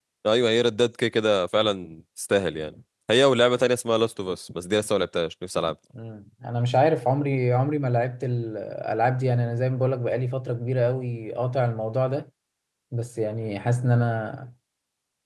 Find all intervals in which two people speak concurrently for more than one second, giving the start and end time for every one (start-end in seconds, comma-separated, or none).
none